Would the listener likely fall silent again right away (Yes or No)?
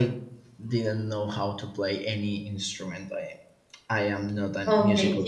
No